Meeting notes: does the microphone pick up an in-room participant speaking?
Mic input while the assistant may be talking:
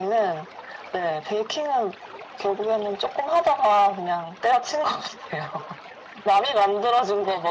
No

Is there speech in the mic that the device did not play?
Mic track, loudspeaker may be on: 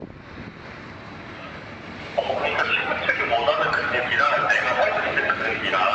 No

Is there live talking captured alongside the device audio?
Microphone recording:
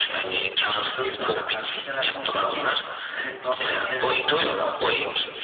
No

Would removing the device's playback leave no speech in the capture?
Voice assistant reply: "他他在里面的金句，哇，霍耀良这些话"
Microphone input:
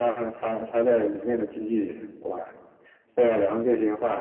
Yes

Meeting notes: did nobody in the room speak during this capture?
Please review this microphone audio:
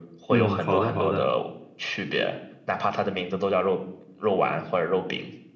No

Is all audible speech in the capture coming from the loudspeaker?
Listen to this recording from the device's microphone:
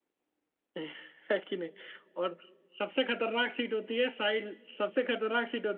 No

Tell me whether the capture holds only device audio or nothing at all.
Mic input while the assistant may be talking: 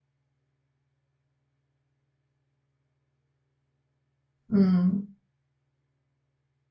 No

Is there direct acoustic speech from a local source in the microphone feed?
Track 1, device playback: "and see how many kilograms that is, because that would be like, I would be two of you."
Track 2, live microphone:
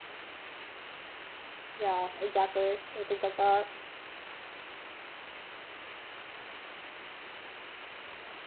Yes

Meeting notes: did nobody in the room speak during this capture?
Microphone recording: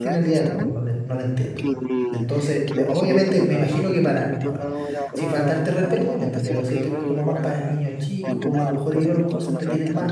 No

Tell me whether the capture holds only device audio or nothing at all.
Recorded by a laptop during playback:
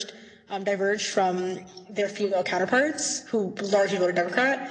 Yes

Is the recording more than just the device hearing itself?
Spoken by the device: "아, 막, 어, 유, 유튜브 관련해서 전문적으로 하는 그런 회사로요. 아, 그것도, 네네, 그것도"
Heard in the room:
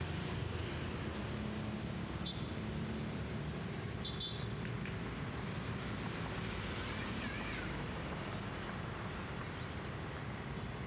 No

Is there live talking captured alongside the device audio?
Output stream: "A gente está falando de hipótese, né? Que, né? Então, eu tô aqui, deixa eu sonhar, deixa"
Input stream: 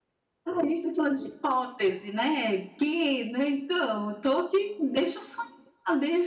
No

